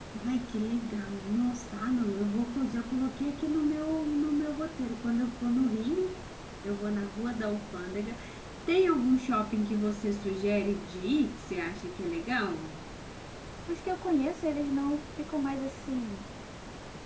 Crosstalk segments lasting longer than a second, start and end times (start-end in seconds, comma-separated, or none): none